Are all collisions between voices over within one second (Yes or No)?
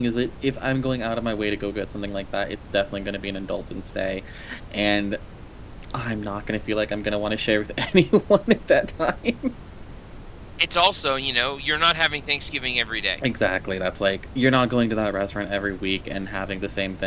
Yes